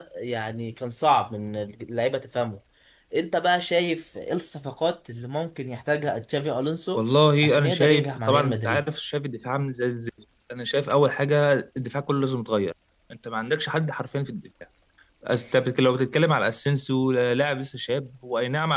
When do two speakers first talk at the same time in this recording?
7.4 s

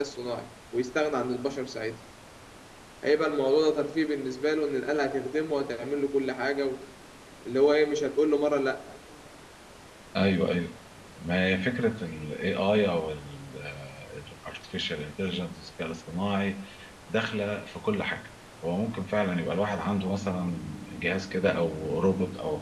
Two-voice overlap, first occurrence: none

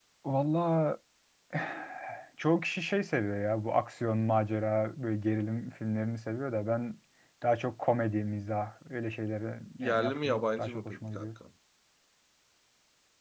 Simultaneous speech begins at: 9.8 s

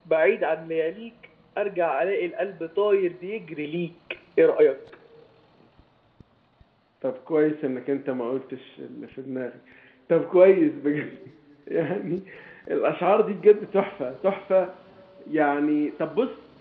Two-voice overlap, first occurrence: none

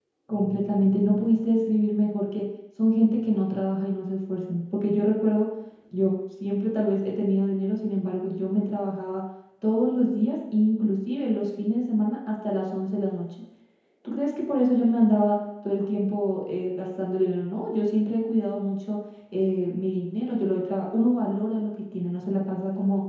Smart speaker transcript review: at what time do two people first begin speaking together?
none

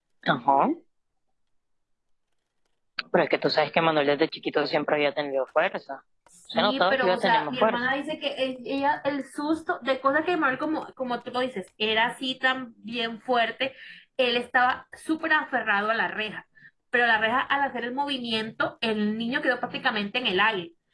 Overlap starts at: 6.5 s

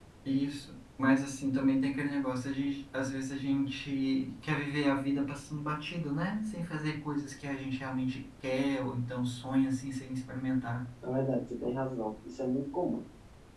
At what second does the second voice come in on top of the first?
none

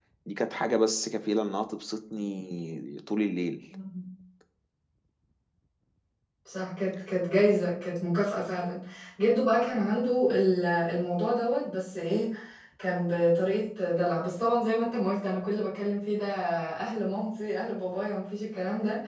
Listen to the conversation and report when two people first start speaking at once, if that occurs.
none

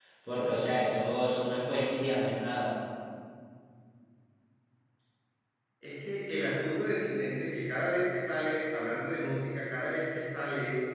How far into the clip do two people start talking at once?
none

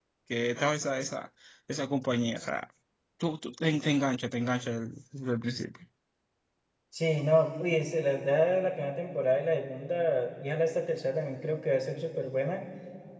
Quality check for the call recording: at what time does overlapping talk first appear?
none

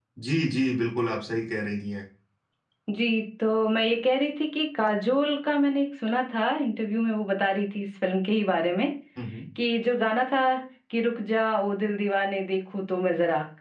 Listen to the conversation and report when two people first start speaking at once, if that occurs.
none

